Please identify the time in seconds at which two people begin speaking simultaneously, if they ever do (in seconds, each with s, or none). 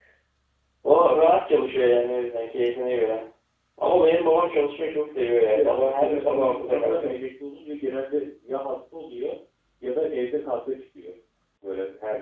5.6 s